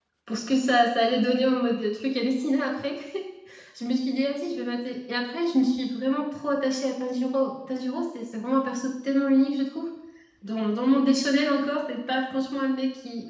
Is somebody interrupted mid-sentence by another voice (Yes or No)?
No